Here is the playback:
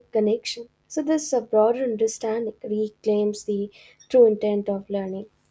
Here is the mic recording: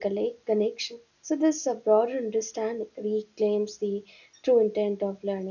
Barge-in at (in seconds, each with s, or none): none